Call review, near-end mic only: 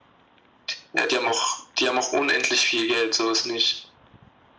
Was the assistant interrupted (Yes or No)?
No